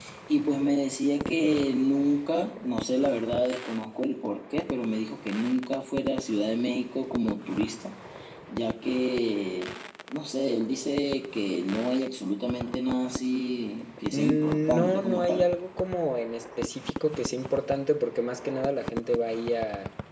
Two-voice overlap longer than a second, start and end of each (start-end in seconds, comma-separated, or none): 14.1-15.5